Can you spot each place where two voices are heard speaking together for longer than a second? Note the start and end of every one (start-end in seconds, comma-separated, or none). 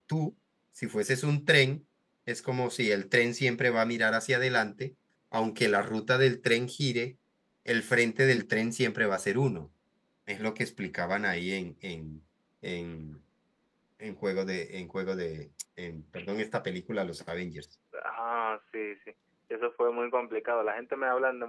none